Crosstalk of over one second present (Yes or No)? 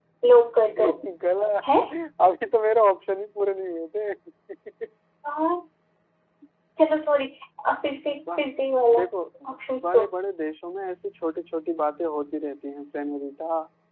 No